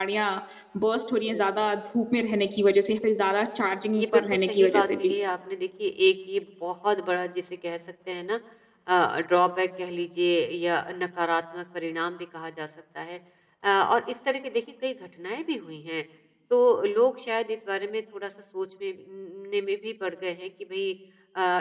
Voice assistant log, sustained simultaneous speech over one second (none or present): present